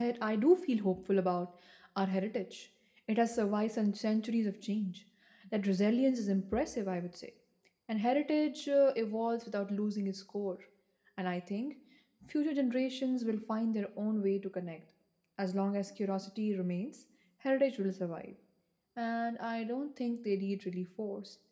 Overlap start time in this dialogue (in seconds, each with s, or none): none